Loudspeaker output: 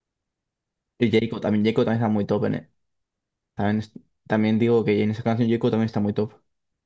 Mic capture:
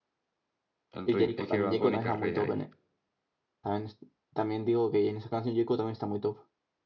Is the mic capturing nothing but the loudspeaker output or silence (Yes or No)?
No